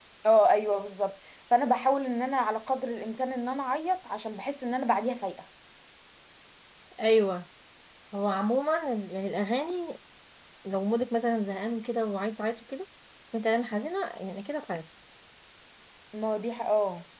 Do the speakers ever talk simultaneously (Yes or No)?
No